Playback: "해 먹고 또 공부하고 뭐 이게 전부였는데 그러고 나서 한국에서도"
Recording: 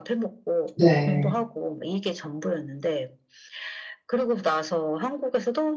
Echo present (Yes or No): Yes